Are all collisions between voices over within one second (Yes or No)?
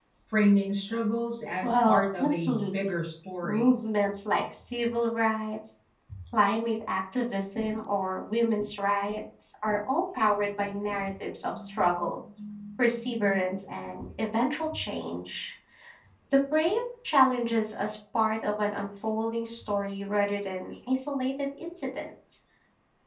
No